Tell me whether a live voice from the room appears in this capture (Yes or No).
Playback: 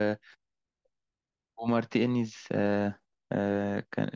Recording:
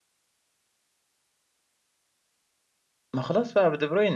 Yes